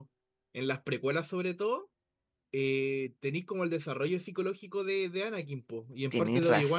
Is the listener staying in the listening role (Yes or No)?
Yes